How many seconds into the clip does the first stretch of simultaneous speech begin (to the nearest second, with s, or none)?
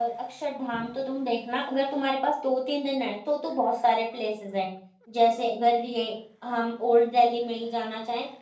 none